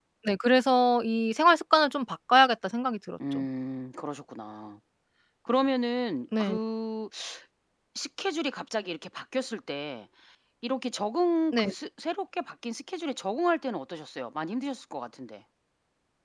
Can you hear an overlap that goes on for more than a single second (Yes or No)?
No